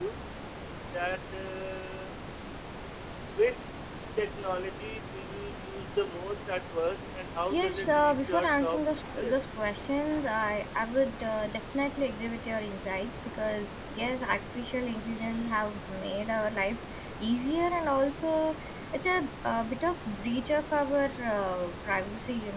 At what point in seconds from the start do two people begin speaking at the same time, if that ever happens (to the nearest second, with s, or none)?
8 s